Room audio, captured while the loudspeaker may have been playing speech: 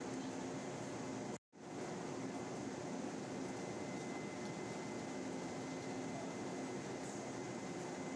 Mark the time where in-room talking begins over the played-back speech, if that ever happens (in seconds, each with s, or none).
none